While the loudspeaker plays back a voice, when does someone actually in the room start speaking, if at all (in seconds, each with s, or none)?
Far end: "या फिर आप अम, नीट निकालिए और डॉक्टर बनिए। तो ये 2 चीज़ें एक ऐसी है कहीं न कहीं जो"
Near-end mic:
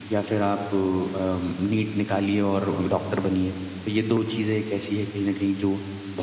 none